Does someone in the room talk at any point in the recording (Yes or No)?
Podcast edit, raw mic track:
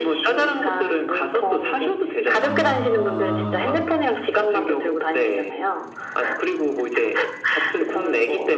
Yes